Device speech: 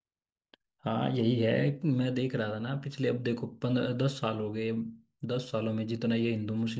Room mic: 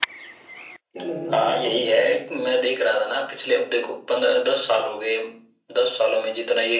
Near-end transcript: क्या लगता है आपको

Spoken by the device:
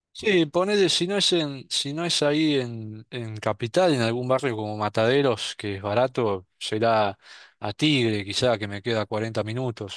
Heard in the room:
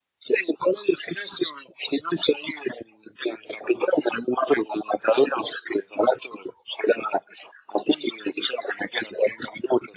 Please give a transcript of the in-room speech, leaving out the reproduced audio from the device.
none

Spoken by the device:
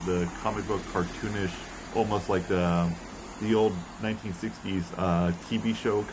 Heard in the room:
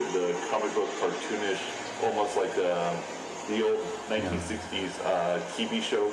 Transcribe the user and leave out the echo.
Yeah.

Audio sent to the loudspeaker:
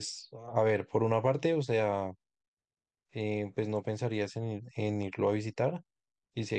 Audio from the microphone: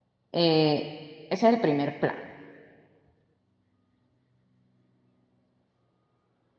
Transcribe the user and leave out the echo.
Eh, ese es el primer plan

